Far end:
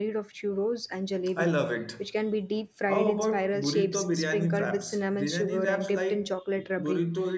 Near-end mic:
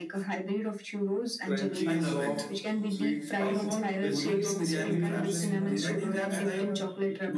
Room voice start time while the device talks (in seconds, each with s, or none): 1.4 s